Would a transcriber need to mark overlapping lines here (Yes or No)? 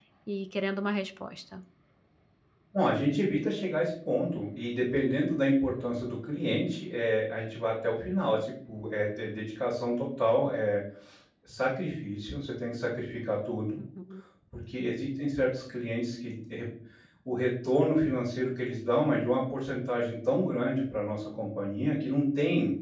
No